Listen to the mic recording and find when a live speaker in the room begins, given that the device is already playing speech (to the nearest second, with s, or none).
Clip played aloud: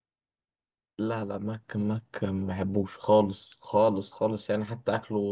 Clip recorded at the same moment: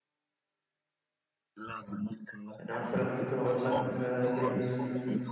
3 s